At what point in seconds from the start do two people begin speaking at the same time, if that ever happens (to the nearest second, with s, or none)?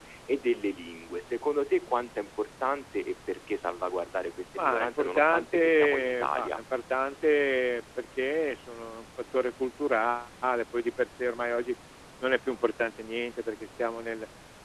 5 s